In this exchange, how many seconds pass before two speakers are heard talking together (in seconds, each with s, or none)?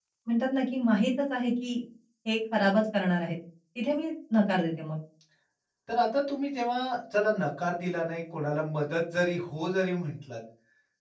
none